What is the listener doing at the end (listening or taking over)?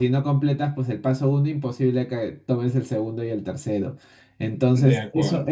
listening